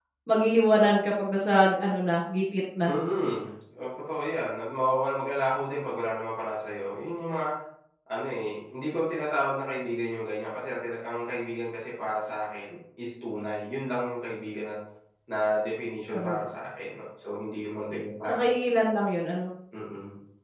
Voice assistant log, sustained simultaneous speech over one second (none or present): none